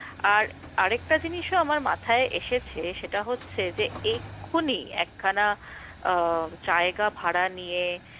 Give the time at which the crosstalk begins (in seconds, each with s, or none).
none